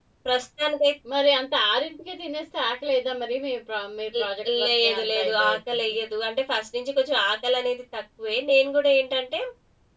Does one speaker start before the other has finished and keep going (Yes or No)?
Yes